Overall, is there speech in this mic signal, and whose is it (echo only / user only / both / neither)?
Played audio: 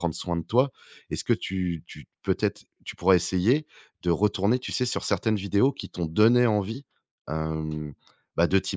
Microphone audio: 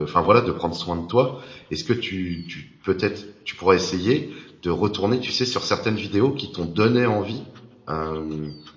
echo only